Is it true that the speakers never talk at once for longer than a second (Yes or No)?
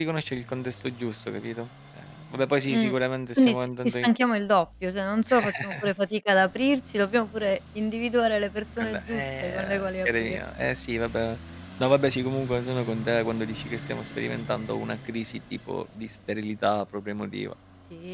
No